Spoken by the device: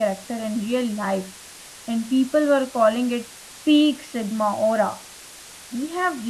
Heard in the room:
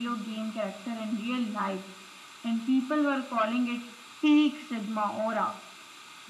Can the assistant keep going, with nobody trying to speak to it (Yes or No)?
Yes